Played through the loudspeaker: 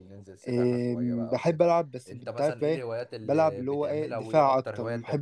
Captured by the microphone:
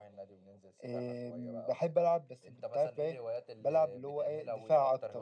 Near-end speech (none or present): none